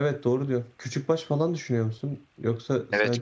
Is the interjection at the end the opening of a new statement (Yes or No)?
Yes